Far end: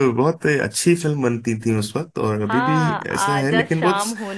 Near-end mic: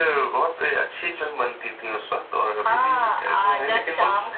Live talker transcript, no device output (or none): none